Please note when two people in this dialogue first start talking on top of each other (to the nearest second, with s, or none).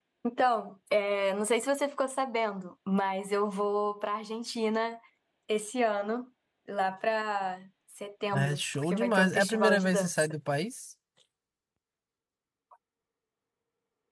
8 s